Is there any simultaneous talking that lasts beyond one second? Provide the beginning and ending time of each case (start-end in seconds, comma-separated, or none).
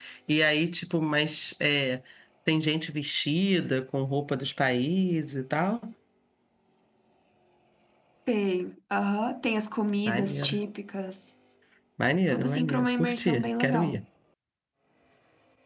12.3-14.0